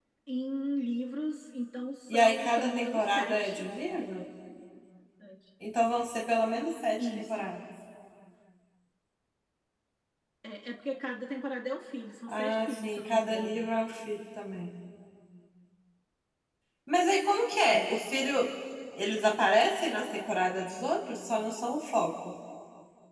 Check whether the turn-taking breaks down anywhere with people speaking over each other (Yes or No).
Yes